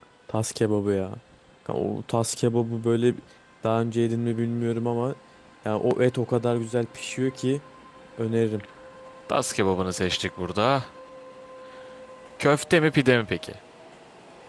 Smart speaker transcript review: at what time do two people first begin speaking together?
none

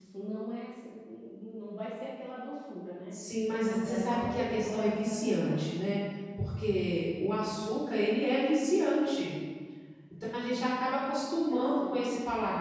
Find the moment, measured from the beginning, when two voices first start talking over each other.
3.6 s

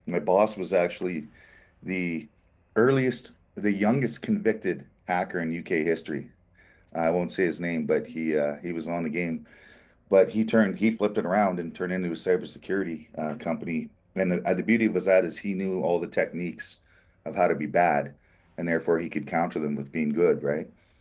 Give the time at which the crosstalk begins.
none

